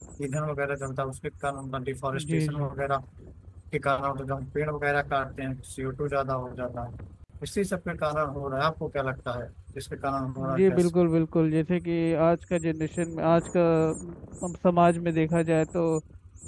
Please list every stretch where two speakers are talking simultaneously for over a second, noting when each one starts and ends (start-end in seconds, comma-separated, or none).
none